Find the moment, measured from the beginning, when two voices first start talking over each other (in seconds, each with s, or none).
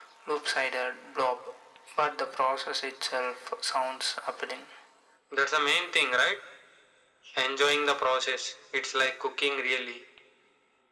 none